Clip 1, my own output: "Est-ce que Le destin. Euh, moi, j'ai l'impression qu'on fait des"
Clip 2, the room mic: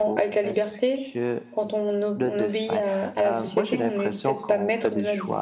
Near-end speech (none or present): present